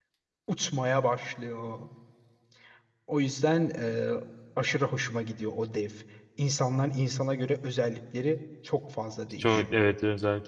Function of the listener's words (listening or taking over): taking over